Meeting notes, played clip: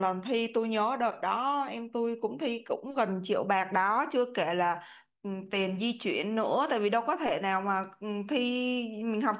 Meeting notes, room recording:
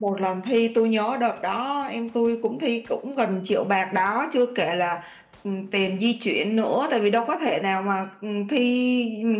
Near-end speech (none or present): none